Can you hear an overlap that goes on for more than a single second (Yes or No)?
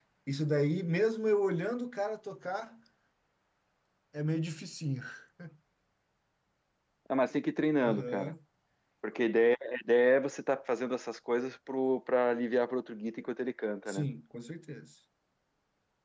No